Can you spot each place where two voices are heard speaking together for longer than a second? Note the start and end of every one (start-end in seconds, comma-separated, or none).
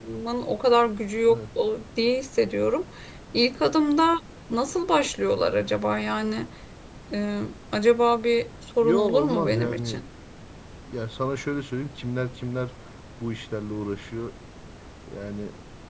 8.8-10.0